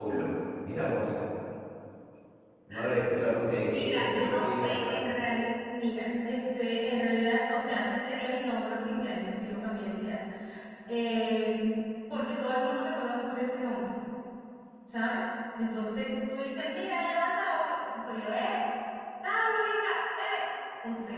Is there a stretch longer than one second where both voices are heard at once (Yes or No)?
Yes